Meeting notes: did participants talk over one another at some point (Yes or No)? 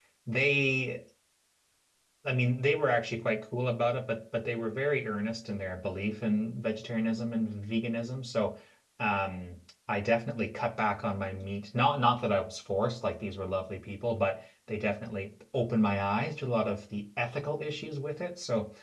No